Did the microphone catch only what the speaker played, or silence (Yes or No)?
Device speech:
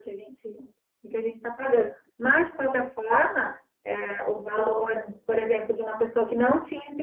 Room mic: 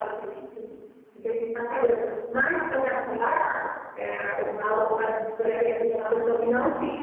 Yes